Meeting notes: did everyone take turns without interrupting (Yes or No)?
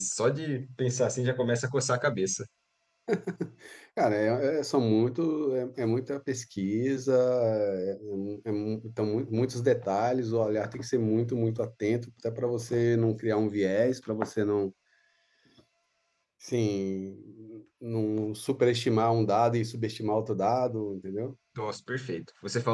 Yes